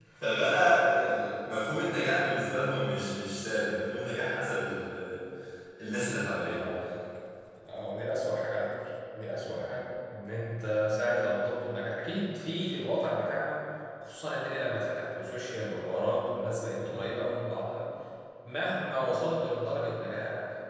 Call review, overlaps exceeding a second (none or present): none